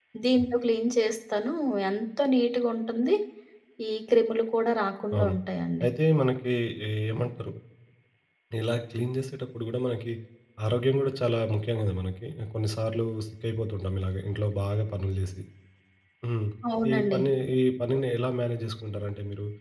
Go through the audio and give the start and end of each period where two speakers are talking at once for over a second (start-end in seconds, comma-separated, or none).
none